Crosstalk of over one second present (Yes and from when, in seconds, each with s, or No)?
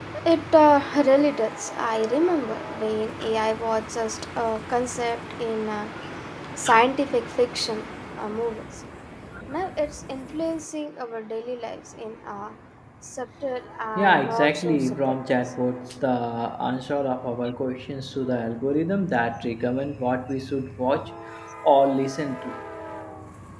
Yes, from 13.9 s